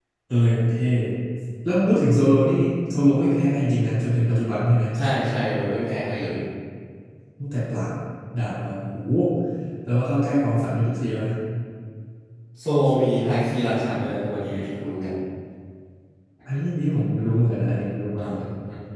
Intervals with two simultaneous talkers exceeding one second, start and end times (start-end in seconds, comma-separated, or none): none